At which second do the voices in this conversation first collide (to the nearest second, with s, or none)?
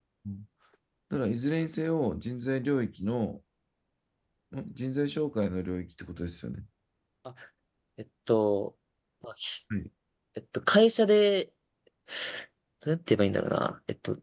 none